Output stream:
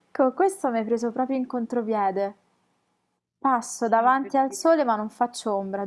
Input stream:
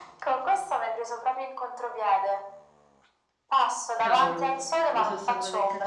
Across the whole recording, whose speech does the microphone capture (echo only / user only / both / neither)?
both